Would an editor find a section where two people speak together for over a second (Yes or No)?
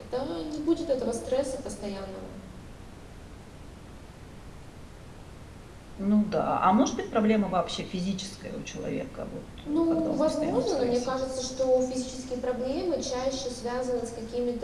Yes